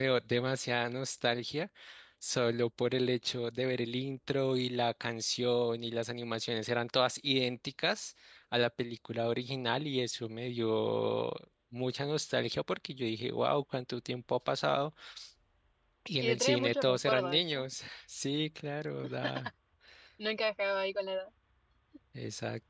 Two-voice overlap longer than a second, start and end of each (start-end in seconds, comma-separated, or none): 16.2-17.6